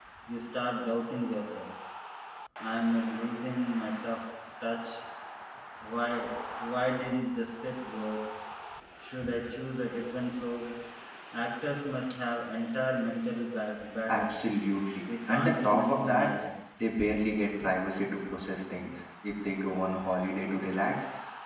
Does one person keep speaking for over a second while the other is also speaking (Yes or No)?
Yes